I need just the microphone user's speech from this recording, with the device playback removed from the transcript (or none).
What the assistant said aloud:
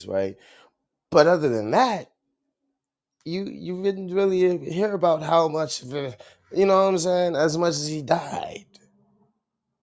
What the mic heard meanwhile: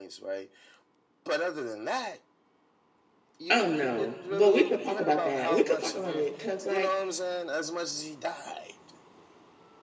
Oh no, but we could talk about that. We could talk about it because like